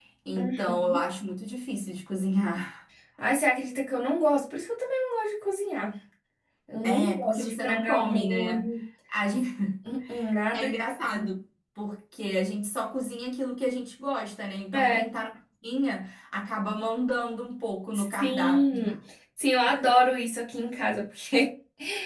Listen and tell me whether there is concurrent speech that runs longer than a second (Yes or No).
Yes